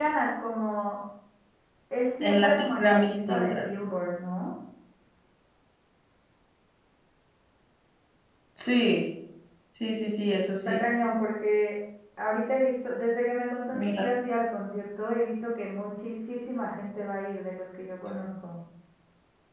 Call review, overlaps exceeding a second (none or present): present